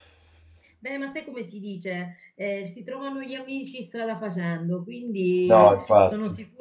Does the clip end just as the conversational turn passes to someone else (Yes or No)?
No